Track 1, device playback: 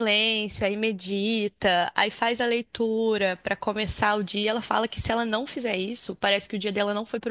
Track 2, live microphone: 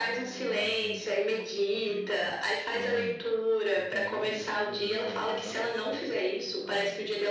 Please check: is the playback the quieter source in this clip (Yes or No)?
No